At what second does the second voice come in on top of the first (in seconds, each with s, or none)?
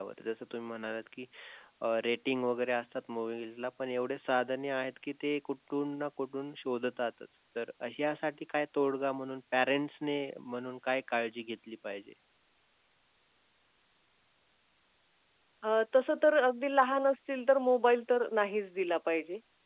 none